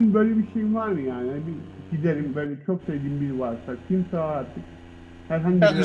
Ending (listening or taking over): taking over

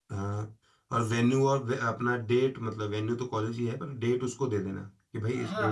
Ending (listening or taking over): taking over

